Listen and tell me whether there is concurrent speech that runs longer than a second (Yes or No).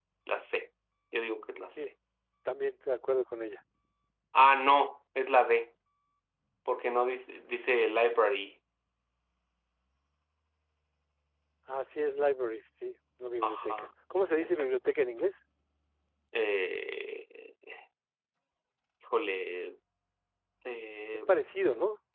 No